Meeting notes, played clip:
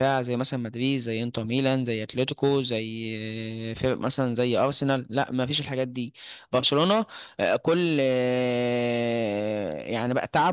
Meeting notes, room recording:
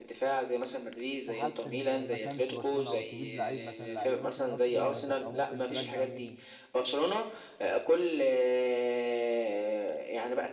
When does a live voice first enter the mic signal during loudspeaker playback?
1.2 s

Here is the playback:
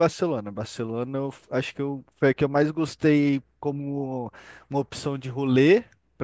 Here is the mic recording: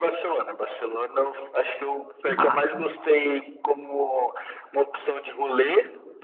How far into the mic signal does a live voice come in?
2.3 s

